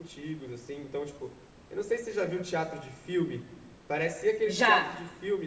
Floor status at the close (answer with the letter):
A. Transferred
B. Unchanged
B